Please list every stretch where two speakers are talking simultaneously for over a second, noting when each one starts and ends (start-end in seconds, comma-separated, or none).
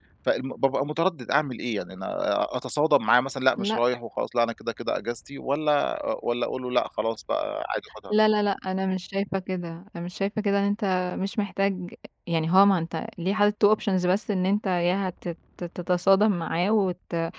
none